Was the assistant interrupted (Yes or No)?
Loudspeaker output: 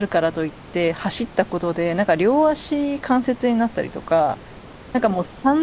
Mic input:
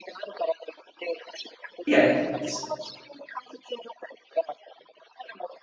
Yes